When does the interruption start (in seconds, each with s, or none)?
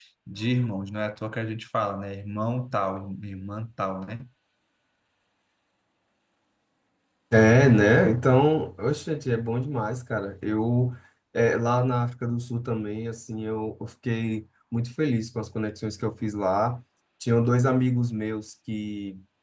none